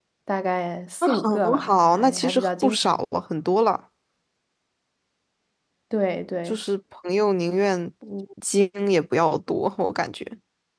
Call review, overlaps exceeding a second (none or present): present